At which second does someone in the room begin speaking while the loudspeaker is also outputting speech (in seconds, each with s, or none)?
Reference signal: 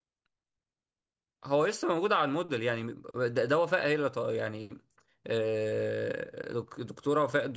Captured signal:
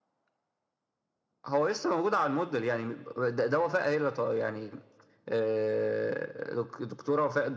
none